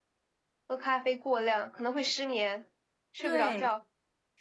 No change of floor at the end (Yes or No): No